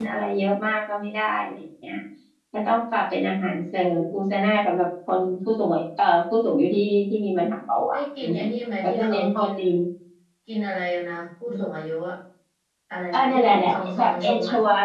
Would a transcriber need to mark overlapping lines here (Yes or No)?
Yes